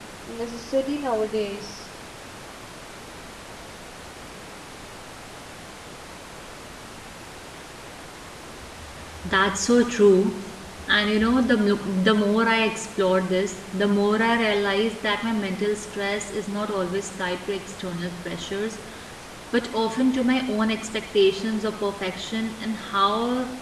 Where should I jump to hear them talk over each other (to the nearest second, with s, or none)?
none